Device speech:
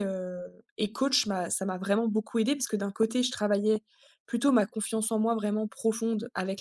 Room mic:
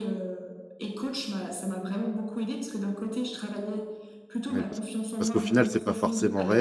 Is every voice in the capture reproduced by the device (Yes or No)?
No